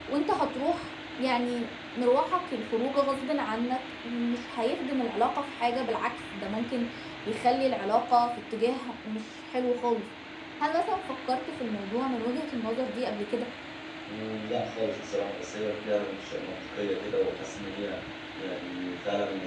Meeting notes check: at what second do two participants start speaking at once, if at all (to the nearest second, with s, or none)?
none